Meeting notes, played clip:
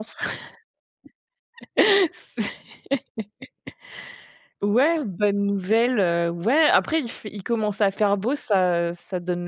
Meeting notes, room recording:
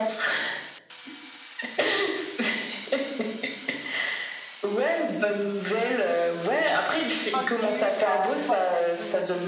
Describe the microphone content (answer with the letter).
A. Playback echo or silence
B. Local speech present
B